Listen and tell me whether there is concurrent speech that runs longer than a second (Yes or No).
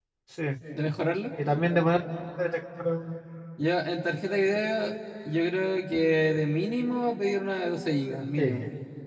No